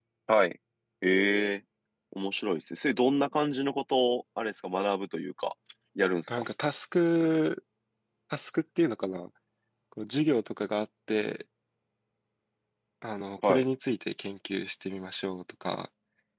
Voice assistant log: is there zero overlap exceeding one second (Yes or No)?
Yes